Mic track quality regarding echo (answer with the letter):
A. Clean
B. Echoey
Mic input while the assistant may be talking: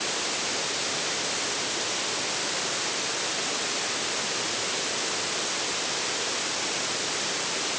A